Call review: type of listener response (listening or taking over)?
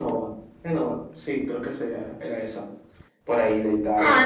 taking over